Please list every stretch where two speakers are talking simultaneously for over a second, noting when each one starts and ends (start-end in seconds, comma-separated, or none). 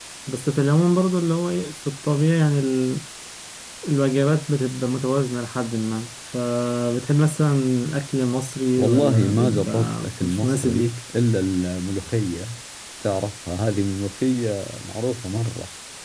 8.8-11.0